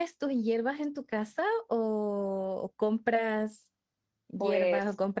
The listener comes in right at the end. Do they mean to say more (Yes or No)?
No